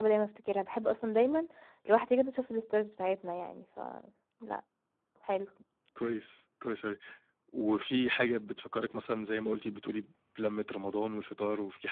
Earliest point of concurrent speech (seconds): none

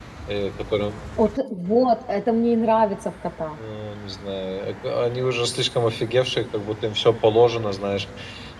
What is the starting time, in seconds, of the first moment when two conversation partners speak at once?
none

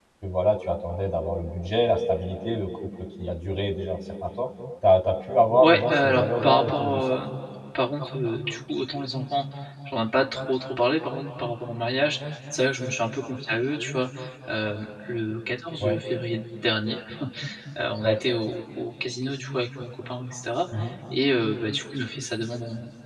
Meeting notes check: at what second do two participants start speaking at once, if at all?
5.6 s

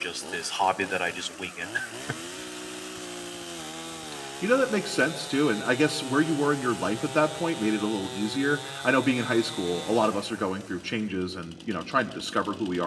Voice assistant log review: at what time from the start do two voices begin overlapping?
none

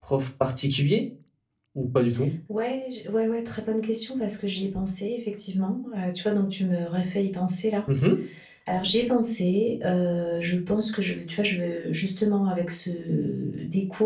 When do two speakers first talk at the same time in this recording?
none

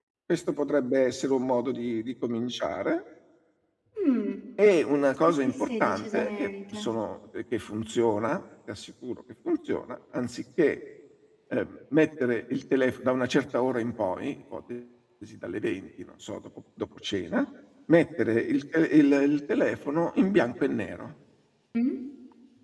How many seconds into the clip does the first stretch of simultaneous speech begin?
5.2 s

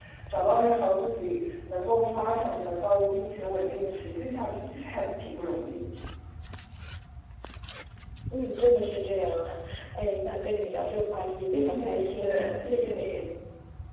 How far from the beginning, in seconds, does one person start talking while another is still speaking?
11.5 s

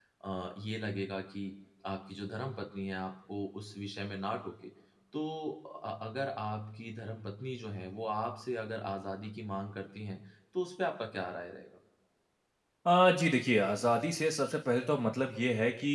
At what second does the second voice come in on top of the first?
none

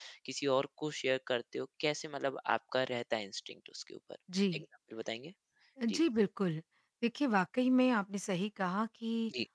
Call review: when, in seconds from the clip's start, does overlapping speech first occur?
none

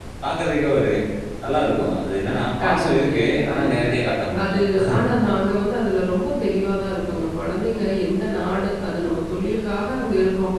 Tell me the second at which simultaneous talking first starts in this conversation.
2.6 s

